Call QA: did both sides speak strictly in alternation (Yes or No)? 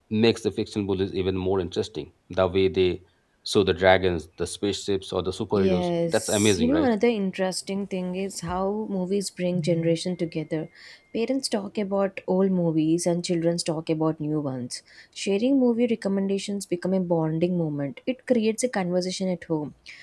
No